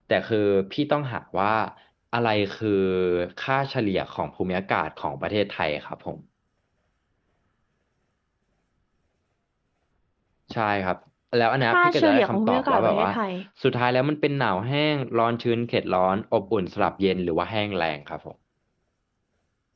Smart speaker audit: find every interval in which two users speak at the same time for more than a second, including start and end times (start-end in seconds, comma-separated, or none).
11.7-13.1